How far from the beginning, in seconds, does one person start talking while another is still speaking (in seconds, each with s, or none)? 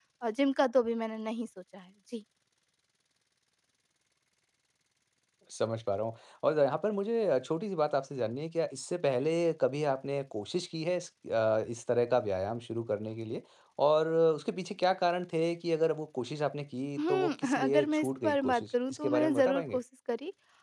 17.0 s